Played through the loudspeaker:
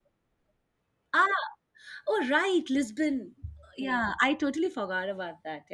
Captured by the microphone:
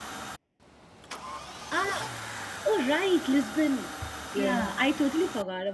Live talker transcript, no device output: Yeah.

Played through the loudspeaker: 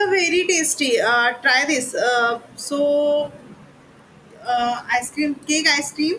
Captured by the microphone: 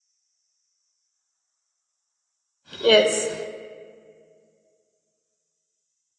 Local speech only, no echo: yes.

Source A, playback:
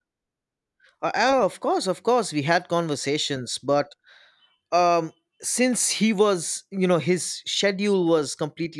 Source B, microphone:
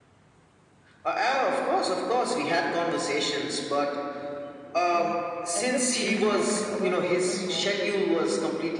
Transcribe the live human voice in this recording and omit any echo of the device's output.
And at the same time, our warden knocked the door

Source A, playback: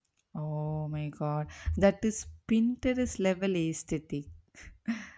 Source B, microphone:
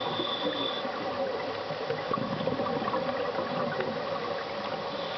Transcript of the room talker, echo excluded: none

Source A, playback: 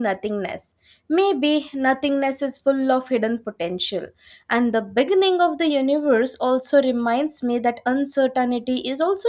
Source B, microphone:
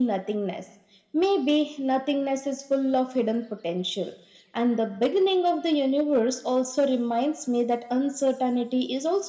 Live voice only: none

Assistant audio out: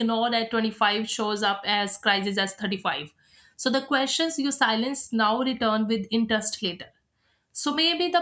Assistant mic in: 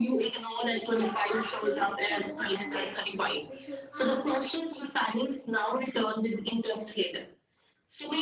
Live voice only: Instead of asking, so what's next? We should ask,

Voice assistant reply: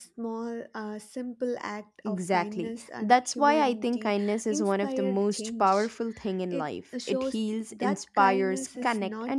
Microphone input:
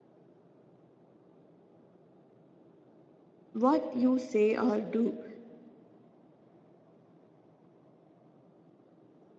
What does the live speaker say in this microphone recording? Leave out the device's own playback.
what you say or do,

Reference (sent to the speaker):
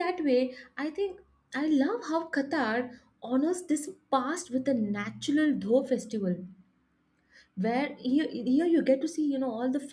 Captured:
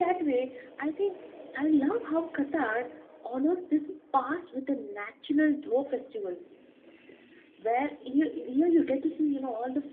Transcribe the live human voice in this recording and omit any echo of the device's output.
none

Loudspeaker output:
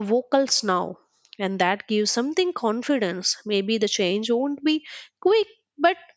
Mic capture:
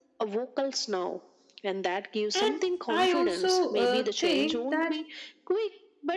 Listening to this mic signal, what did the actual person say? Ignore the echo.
And I also uh, think that

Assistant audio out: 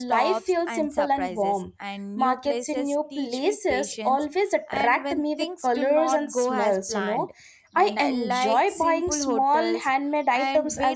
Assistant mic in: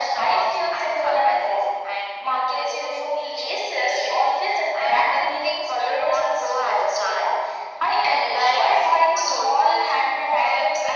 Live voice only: none

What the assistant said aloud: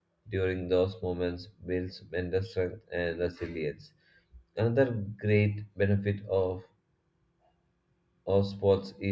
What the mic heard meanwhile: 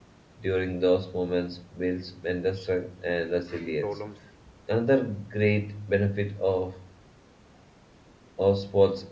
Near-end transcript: problems

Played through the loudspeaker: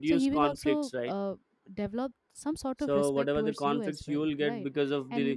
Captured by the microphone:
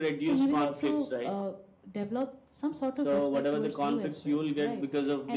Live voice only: none

